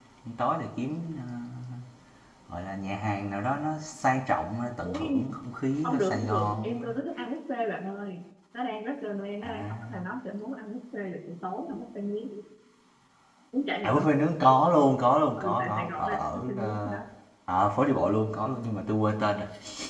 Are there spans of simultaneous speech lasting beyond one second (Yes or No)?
Yes